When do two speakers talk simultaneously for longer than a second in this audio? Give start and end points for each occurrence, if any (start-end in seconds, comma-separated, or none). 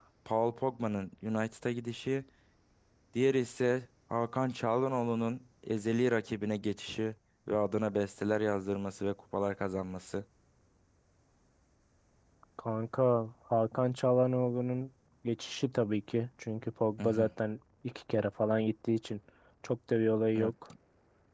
none